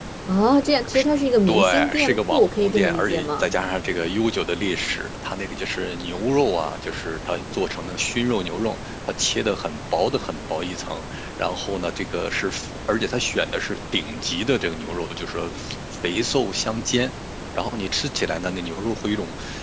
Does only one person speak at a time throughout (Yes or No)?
No